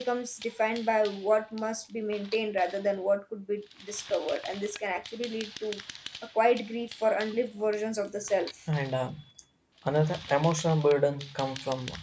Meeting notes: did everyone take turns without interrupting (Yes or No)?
Yes